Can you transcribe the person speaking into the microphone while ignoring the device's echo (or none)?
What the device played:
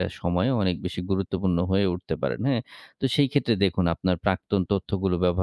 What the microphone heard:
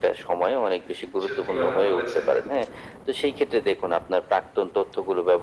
হু, হু। সত্যি কথা বলেছেন।